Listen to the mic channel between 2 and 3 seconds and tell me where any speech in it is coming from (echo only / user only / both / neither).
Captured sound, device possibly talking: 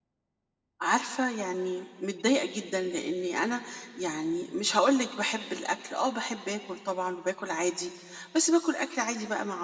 user only